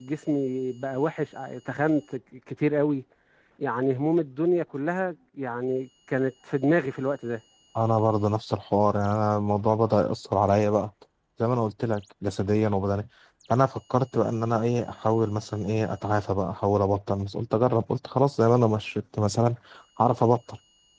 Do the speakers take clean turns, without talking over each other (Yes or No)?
Yes